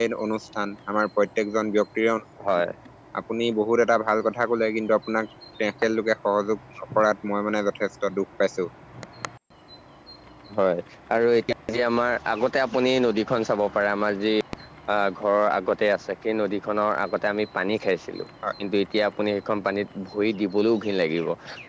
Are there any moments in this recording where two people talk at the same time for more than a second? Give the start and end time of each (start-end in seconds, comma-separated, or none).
none